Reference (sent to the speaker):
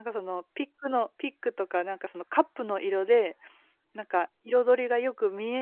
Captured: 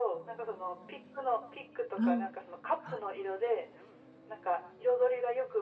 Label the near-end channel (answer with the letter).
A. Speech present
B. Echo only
A